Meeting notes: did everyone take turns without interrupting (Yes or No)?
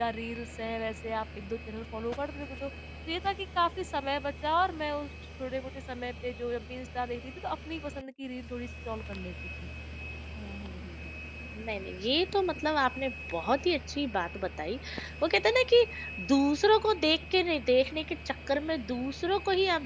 Yes